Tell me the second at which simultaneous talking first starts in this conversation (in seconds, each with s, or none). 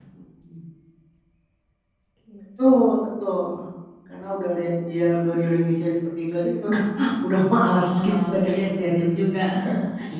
7.9 s